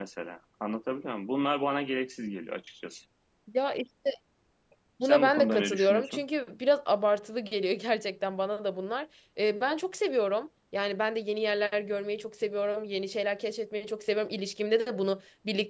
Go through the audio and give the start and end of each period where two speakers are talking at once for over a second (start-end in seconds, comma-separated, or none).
5.0-6.2